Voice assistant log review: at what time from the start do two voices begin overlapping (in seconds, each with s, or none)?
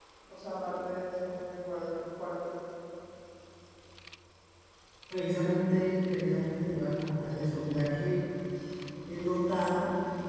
none